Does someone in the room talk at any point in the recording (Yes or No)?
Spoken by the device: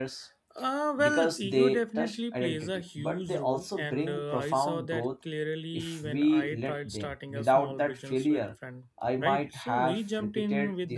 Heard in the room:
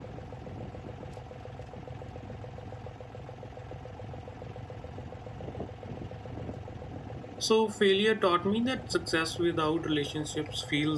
Yes